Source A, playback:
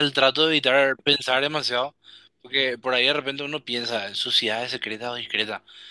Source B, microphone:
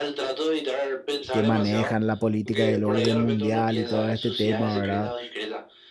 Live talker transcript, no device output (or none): que manejan la política y el orden mundial y todo este tema, ¿verdad?